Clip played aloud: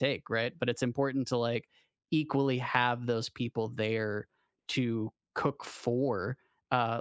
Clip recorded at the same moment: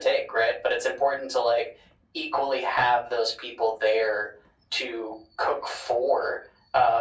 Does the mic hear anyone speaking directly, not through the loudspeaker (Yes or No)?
No